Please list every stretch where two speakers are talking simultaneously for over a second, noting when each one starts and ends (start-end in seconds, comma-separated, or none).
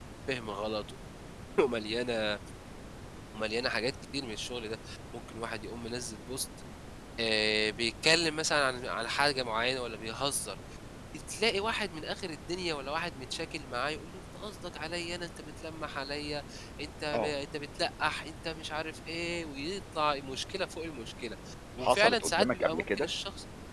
21.8-23.1